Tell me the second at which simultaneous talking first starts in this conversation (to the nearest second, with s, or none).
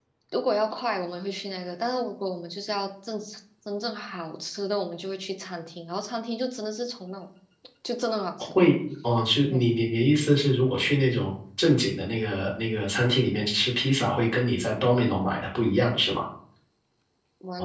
none